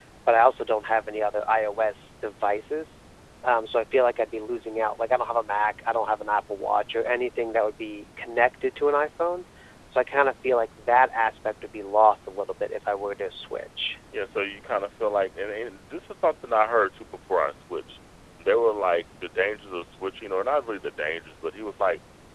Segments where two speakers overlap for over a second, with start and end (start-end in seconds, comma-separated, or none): none